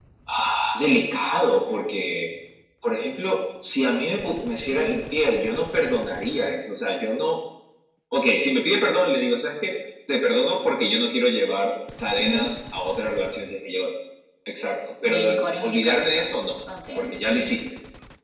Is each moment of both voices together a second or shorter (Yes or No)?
No